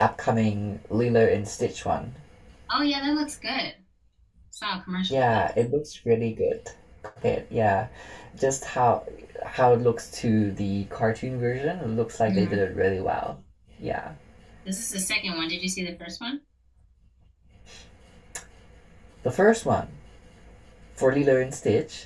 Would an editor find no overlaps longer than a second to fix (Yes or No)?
Yes